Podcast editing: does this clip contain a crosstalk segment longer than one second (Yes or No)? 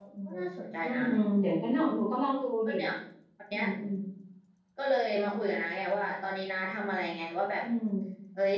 No